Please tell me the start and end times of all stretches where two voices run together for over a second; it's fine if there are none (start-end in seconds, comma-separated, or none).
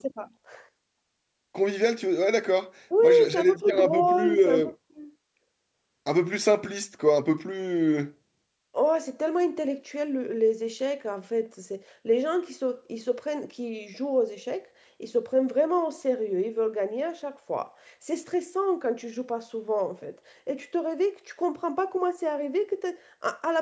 3.0-4.7